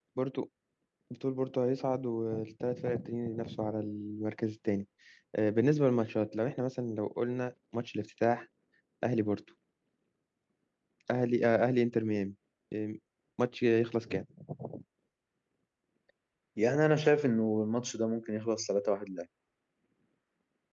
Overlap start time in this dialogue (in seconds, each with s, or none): none